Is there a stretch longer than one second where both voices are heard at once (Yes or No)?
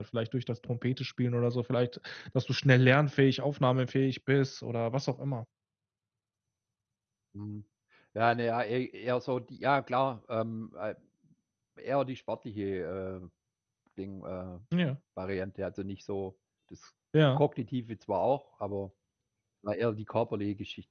No